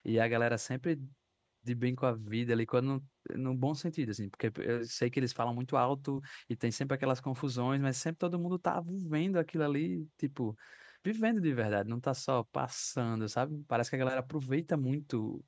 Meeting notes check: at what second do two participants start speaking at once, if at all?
none

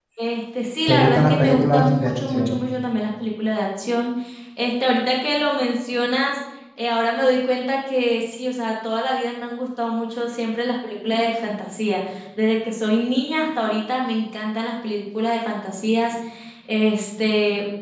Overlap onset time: 1 s

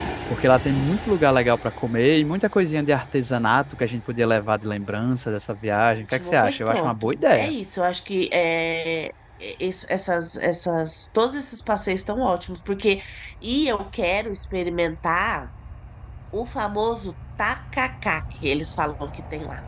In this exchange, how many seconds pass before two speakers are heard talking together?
6 s

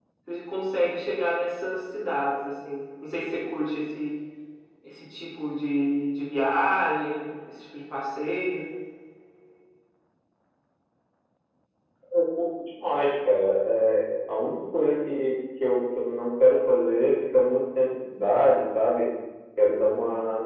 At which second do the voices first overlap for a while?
none

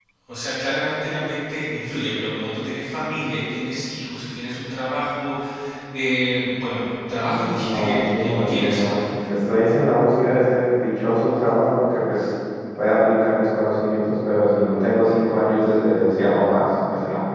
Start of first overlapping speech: 7 s

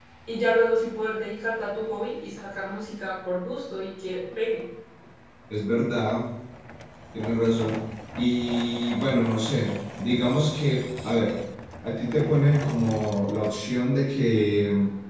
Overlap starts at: none

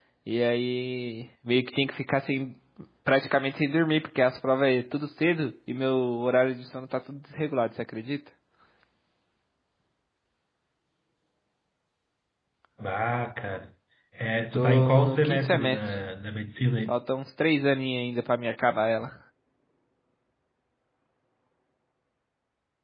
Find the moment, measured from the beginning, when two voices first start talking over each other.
15 s

